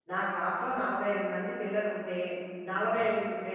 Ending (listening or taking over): listening